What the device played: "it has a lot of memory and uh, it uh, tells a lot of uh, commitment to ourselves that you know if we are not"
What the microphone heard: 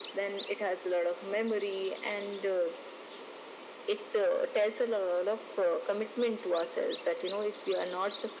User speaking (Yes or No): No